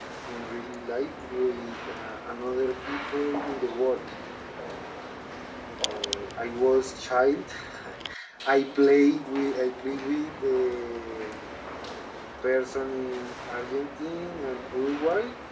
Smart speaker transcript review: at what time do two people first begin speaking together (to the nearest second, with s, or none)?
none